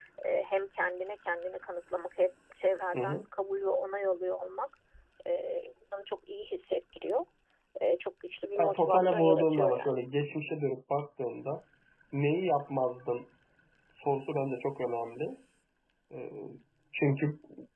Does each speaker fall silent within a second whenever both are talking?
No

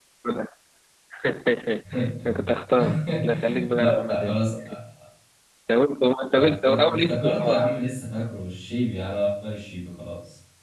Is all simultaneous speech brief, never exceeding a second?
No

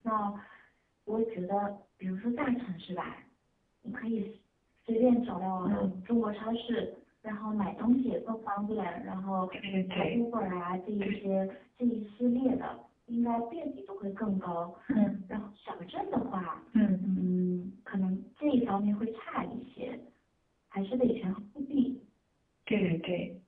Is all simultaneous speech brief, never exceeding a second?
Yes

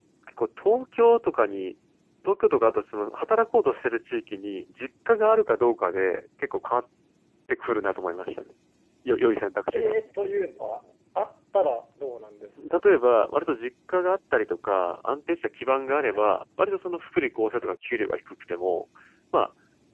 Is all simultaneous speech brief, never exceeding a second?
Yes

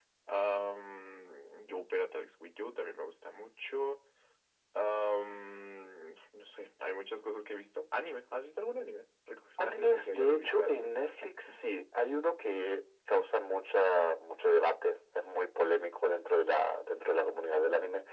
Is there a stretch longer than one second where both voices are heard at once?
Yes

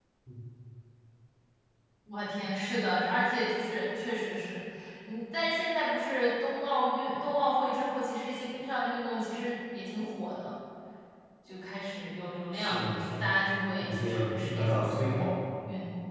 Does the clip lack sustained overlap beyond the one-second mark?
No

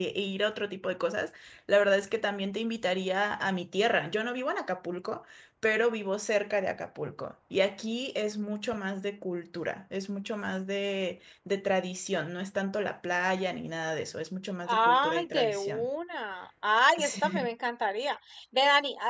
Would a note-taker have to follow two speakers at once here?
Yes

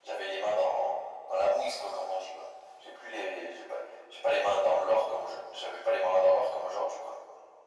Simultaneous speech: No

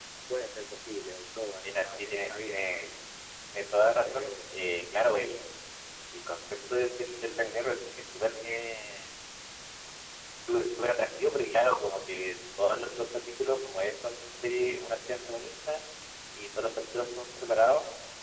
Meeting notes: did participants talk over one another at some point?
Yes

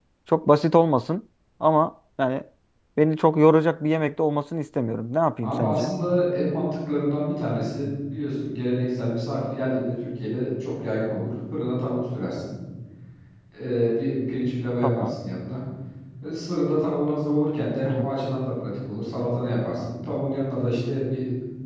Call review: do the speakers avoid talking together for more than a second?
Yes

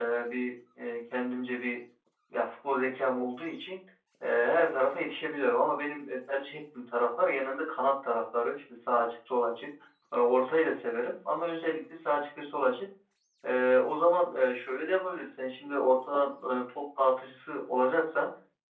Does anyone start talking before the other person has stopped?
No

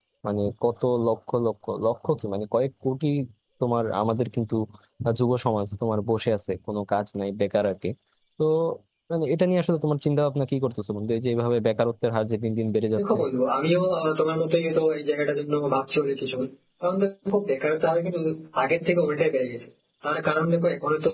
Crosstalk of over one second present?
No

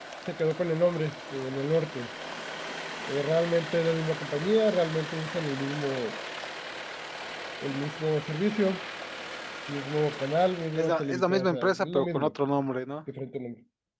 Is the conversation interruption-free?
No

